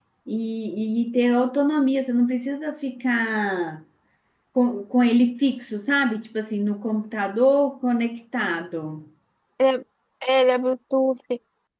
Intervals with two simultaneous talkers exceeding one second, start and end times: none

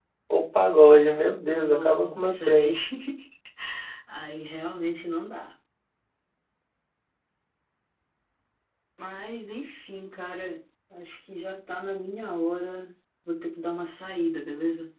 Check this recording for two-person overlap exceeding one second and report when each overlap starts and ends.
1.5-2.7

